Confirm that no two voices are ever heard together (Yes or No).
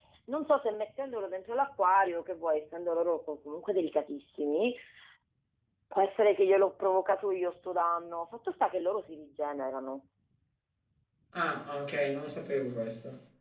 Yes